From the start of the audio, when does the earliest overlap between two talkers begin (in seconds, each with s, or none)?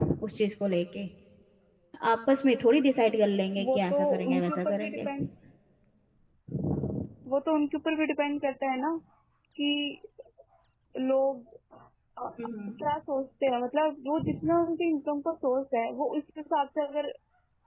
3.6 s